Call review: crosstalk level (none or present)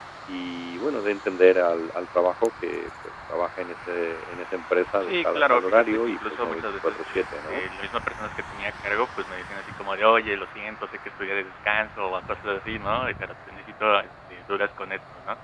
present